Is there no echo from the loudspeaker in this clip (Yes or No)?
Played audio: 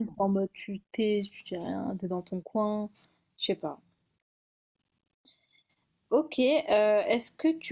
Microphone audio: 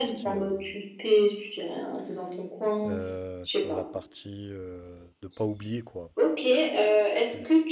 No